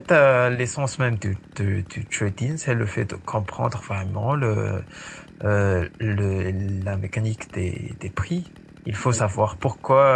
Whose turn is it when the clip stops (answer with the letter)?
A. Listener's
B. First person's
B